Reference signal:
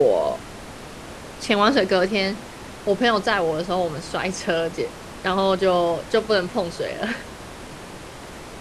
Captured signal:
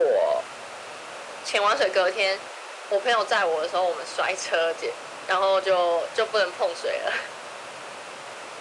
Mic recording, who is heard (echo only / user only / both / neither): echo only